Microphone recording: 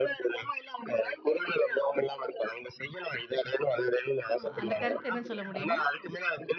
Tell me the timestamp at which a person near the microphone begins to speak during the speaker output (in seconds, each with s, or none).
4.3 s